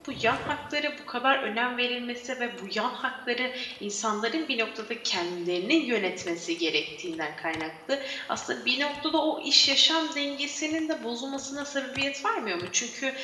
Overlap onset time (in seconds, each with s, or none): none